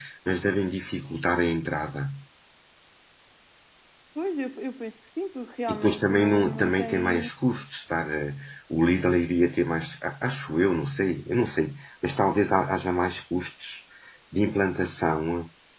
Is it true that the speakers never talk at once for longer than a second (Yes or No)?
No